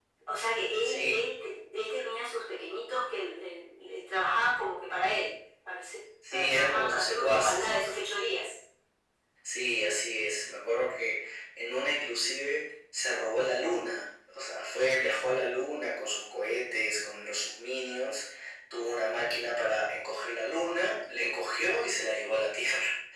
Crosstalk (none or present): present